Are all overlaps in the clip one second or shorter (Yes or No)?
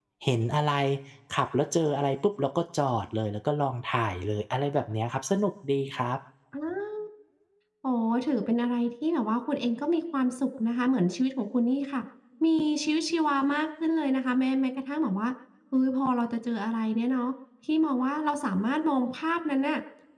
Yes